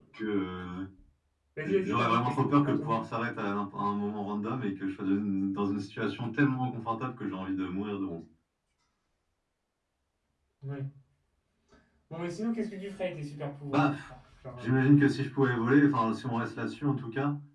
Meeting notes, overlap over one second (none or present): present